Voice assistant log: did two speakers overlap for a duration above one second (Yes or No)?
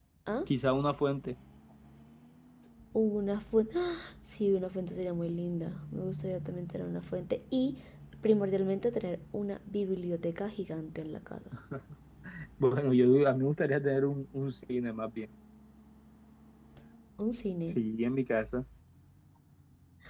No